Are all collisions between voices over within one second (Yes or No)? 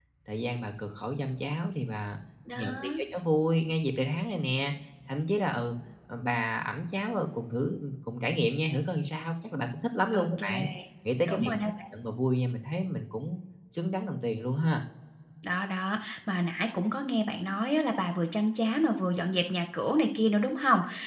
Yes